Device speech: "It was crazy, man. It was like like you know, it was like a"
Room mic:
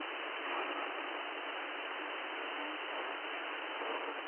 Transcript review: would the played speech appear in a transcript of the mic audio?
No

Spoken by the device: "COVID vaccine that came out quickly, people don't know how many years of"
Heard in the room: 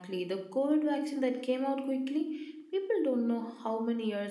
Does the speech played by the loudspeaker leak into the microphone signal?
Yes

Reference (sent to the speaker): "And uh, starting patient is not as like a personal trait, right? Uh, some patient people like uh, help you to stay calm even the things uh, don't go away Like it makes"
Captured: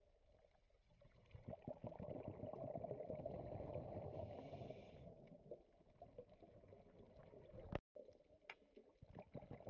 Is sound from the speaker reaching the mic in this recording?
No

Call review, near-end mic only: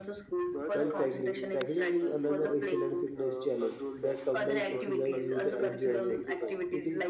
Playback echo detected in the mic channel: Yes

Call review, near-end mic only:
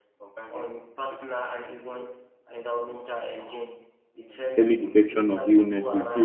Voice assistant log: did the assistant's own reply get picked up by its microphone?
Yes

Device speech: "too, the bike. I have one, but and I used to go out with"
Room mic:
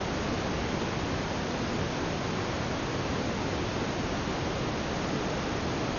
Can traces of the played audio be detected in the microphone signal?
No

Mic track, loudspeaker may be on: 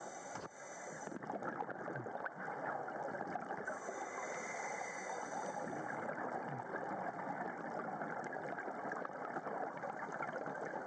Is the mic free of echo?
Yes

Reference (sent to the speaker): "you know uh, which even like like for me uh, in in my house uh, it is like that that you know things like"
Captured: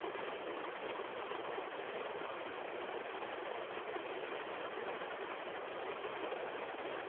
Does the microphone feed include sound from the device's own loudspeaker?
No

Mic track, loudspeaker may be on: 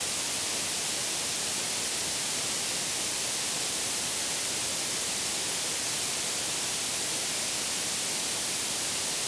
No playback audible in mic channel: Yes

